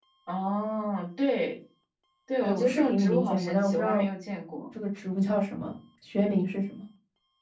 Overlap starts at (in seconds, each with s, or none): 2.4 s